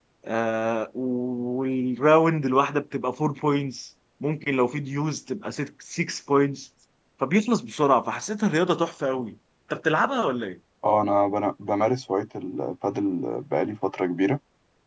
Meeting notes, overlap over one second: none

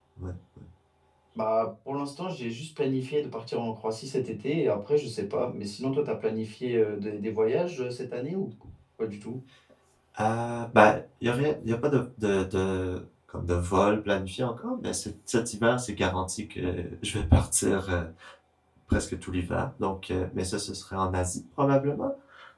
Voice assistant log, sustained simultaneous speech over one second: none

